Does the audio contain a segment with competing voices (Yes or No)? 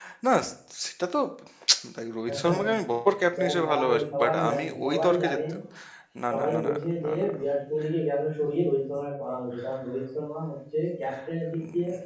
Yes